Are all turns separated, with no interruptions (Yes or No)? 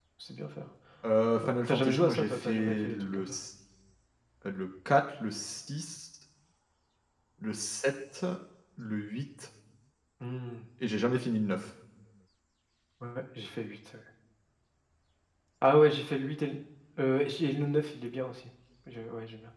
No